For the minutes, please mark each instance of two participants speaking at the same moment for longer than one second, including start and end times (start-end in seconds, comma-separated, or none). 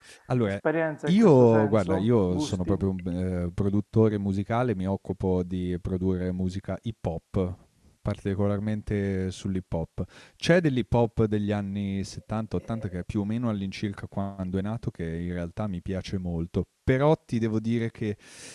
1.1-2.8